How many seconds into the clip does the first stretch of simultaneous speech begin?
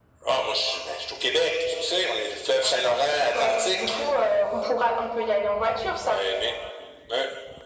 3 s

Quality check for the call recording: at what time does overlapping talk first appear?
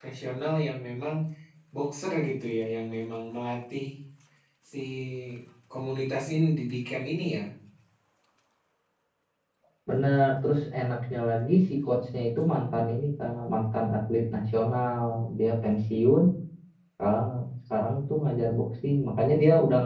none

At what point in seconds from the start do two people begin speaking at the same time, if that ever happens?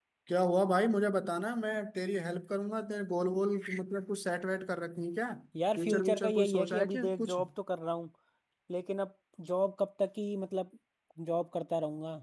6 s

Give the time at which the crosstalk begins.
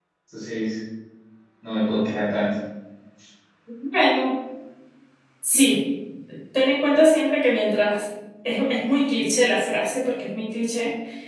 none

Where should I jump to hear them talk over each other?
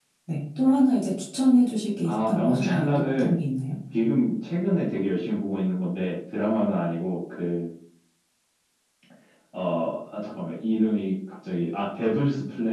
2 s

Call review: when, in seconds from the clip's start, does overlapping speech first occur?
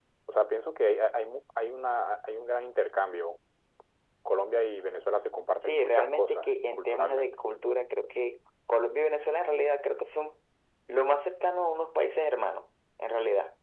6 s

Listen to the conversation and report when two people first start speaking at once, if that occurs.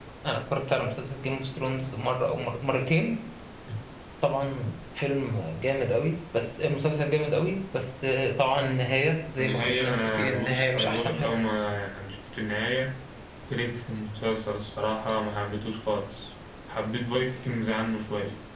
9 s

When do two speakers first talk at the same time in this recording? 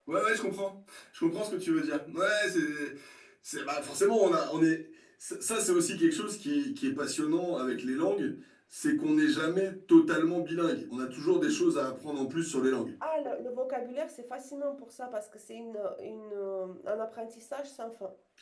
none

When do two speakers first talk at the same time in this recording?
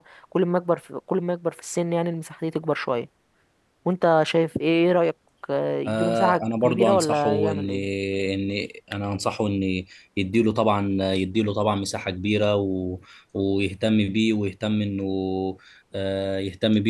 6 s

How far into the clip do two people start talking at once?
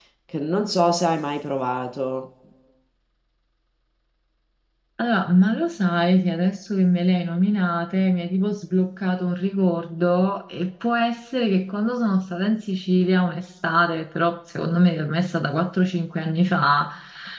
none

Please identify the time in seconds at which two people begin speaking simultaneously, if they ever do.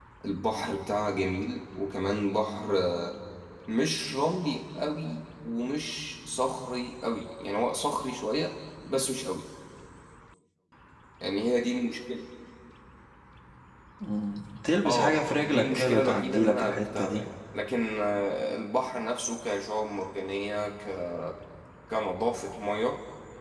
15 s

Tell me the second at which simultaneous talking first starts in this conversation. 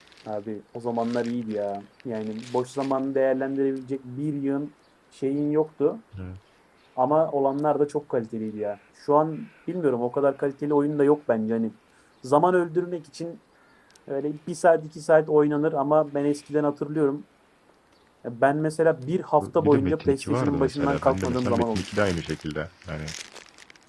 19 s

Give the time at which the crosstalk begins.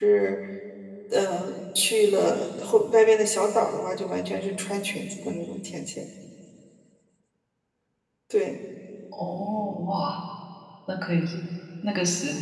none

